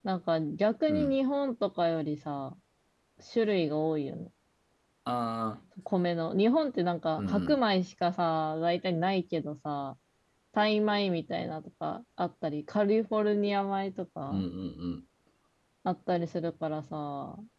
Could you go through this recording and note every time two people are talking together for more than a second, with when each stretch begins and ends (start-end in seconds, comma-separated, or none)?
none